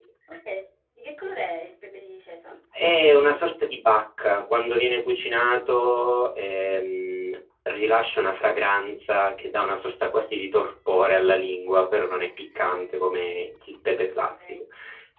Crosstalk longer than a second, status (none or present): none